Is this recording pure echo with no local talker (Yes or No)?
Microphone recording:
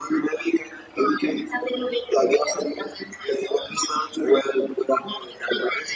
Yes